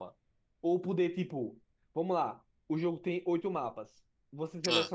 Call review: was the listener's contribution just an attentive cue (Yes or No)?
Yes